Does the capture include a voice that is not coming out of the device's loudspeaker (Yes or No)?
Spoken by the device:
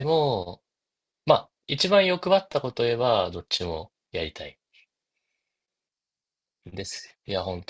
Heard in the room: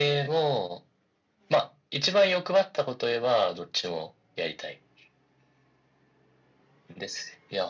No